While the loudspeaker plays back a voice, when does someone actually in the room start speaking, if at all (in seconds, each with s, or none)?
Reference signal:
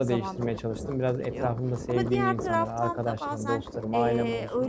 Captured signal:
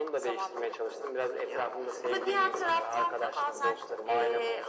none